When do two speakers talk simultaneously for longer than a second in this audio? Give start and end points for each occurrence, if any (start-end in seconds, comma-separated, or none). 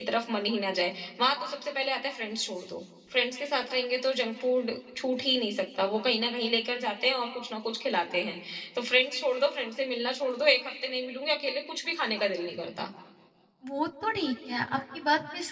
none